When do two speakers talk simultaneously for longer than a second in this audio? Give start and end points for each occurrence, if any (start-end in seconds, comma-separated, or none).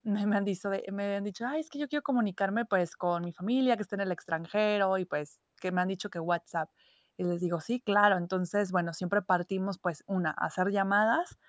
none